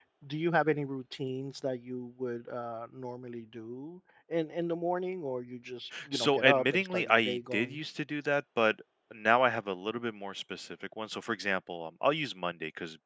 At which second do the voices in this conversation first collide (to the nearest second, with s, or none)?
6 s